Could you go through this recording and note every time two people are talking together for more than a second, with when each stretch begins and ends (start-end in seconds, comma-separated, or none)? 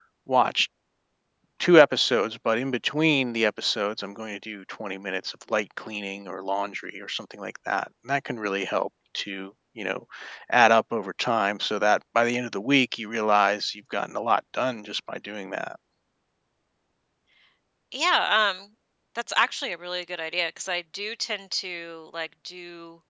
none